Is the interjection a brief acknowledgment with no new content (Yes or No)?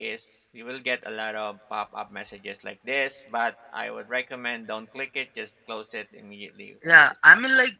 No